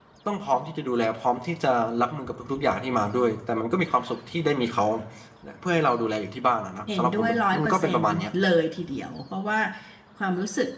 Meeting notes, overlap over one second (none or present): present